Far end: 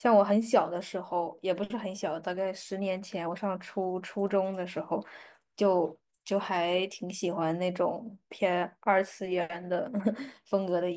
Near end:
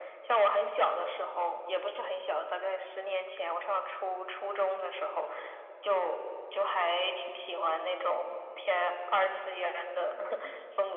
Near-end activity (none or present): none